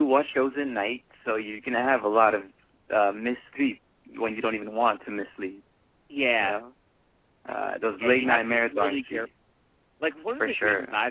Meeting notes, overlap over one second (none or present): present